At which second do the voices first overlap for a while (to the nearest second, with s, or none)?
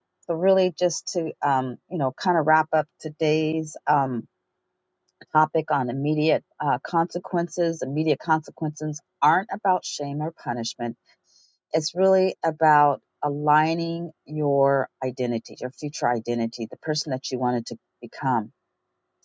none